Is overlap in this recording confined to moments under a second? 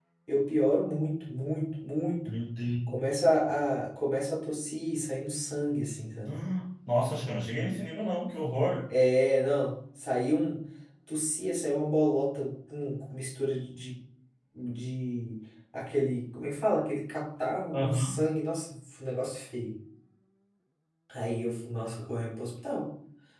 Yes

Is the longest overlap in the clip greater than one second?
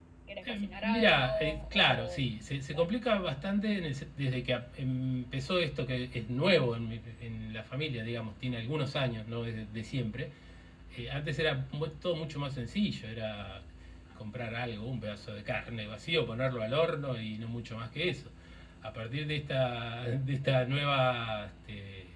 Yes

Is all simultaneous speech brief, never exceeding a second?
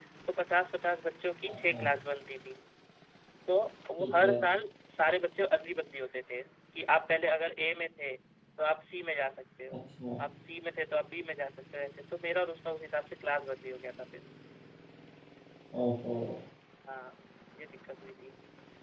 Yes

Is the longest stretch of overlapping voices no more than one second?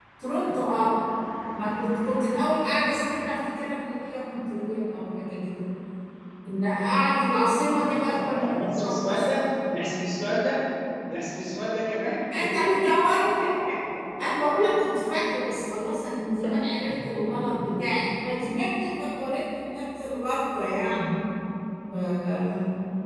No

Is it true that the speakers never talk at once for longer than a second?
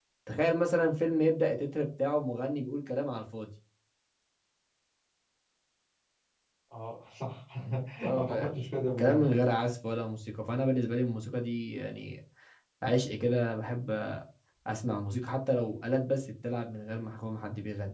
No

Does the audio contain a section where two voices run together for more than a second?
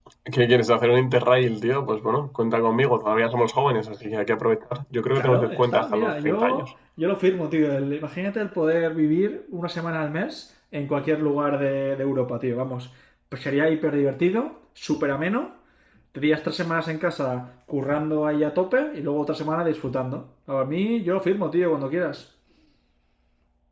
Yes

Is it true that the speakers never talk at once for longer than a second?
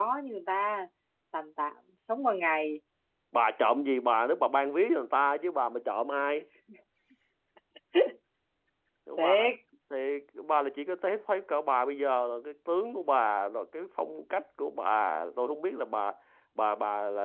Yes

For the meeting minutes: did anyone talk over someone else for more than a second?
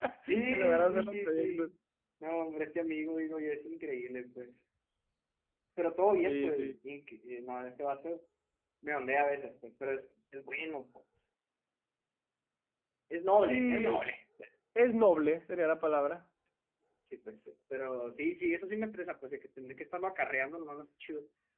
Yes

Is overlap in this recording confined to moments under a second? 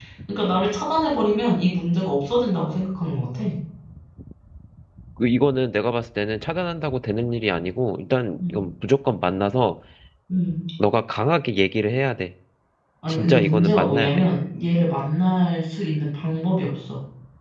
No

